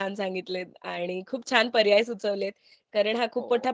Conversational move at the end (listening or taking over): listening